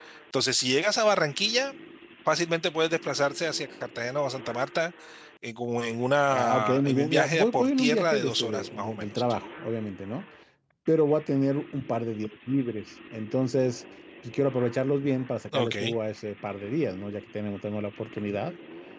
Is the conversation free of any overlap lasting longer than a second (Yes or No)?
No